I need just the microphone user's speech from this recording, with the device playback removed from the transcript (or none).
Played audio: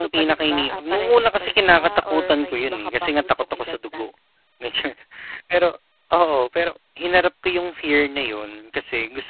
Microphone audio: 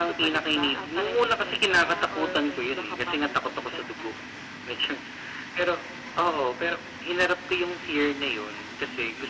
none